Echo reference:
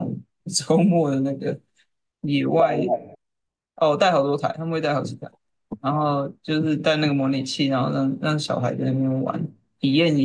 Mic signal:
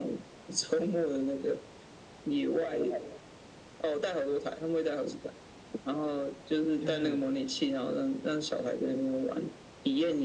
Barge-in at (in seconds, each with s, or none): 6.8 s